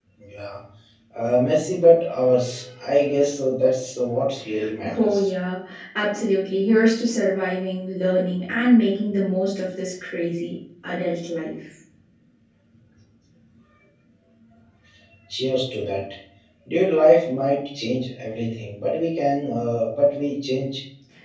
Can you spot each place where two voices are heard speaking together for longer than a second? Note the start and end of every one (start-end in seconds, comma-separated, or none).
none